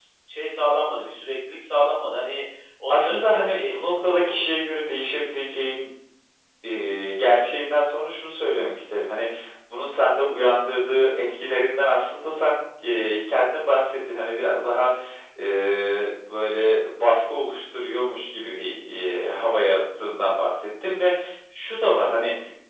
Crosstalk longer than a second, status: present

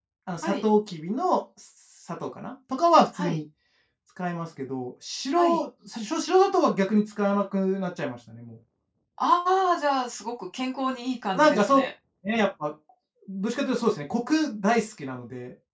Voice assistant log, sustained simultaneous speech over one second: none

